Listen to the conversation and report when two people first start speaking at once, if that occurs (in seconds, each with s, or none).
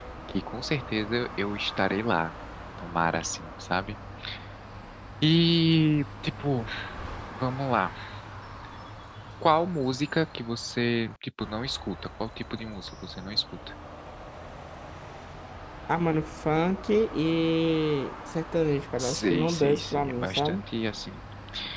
18.9 s